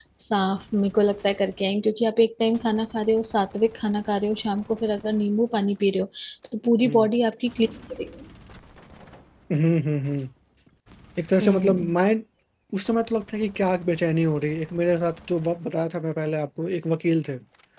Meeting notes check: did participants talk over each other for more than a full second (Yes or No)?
No